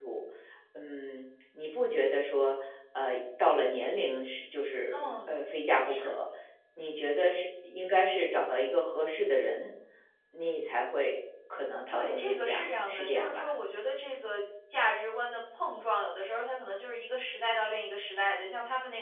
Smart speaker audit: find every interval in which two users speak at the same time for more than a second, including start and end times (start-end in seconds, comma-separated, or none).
11.9-13.5